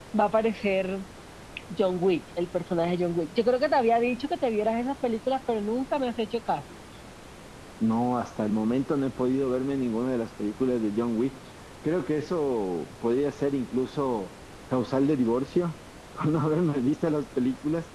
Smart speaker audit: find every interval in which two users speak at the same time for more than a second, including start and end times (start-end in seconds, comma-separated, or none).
none